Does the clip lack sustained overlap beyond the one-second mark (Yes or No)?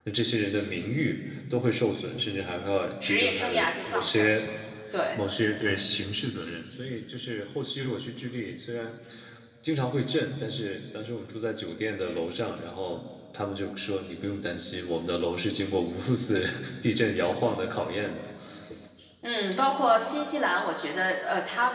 No